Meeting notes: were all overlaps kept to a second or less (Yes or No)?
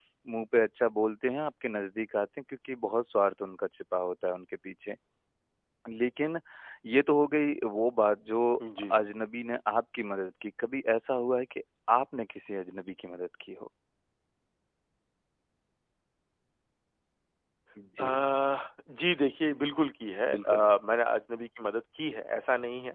Yes